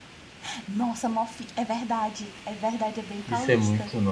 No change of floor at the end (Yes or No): No